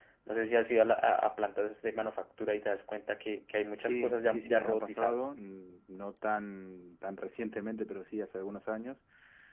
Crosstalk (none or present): present